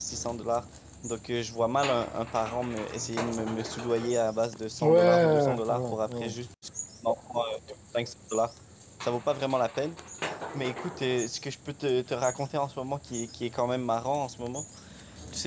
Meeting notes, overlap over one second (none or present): present